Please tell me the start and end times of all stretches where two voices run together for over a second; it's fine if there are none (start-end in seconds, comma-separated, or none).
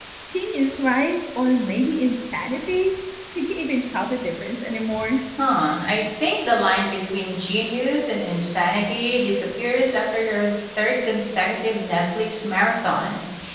none